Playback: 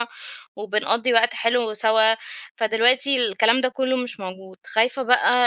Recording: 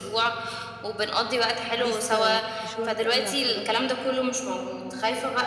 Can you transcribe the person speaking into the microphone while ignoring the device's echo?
لسه مش واخدة أوي على الكلام ده؟

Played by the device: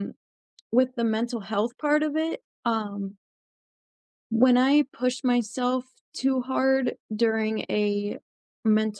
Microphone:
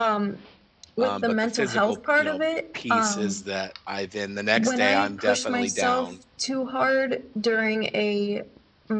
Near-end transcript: Um, but the physical, you know, piece is that I then the next day I'm definitely down

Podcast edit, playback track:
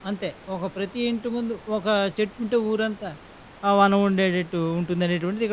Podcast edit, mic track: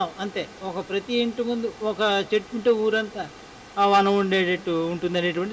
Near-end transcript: none

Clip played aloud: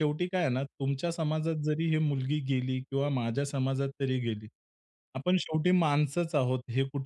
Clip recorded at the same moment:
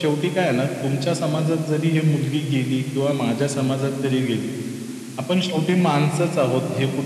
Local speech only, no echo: none

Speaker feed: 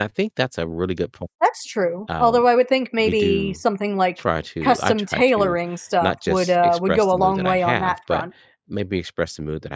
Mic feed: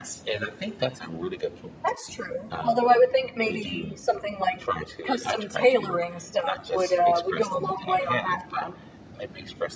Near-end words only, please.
none

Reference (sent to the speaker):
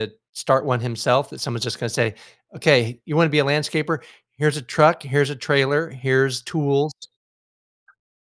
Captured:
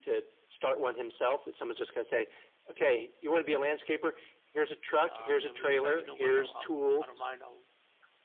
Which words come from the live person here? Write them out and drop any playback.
Uh, and then we decided, you know what? I'll I'll I don't mind. I'll

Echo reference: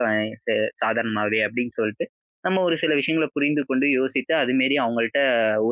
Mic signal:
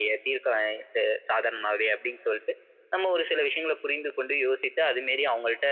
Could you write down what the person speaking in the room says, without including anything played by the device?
none

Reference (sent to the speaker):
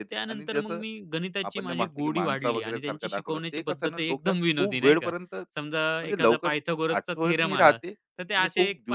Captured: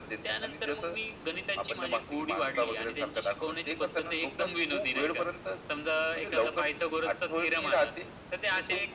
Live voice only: none

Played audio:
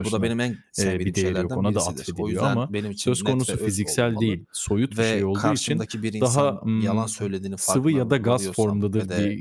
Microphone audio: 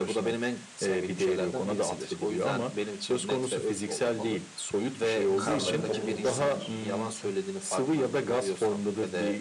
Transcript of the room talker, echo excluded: insanlar, toplum için midir?

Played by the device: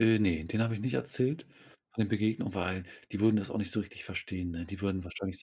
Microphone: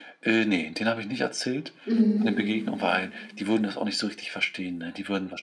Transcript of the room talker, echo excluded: Mhm.

